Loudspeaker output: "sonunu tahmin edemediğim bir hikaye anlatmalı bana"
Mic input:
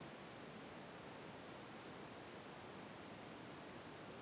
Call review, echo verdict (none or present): none